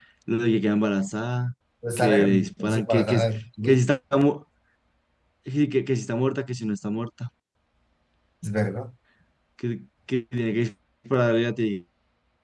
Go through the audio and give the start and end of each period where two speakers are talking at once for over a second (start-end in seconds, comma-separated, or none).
2.0-3.2